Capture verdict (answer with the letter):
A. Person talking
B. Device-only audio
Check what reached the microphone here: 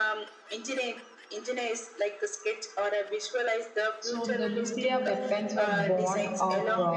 A